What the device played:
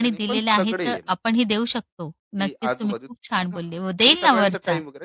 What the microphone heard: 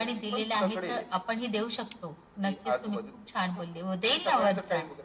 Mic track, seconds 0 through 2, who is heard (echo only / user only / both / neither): echo only